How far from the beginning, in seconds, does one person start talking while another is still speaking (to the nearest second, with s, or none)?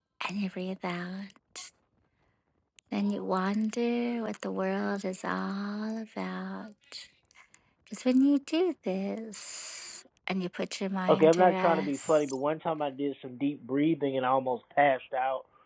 11 s